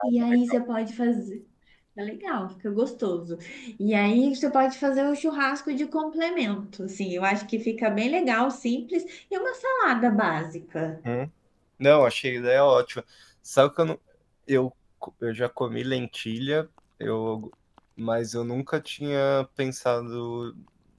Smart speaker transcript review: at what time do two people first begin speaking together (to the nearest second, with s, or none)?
none